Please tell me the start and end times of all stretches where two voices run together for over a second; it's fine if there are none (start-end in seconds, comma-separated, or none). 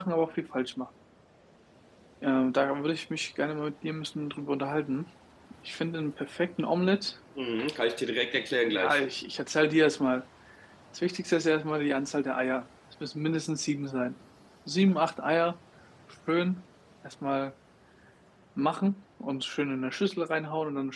none